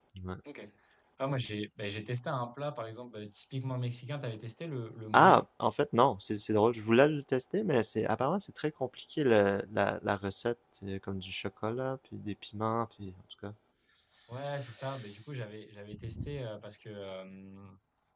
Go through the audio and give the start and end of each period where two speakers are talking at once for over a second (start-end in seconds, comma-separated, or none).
none